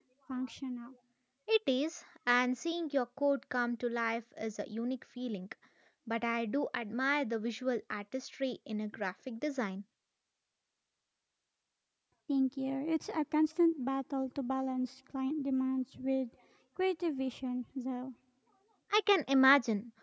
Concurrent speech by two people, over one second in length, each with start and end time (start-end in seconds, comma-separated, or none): none